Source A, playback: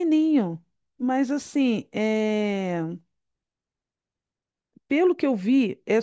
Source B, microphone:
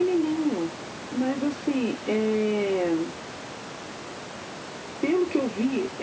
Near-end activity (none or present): none